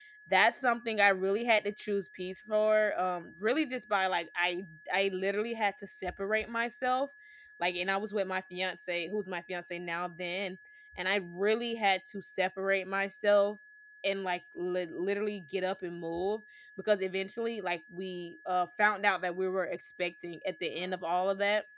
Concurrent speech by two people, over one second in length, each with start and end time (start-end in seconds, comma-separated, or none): none